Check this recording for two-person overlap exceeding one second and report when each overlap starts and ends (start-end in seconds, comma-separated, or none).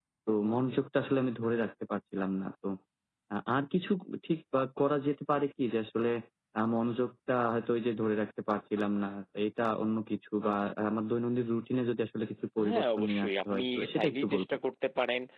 12.6-14.5